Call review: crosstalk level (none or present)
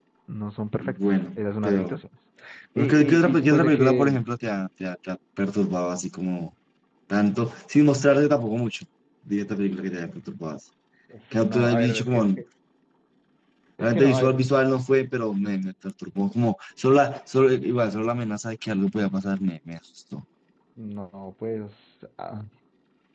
present